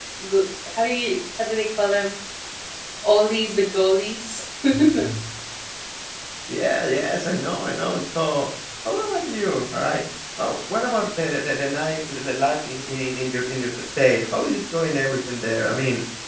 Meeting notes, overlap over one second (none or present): none